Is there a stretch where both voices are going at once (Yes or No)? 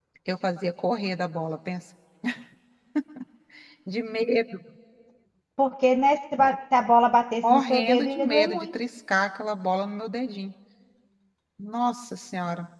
Yes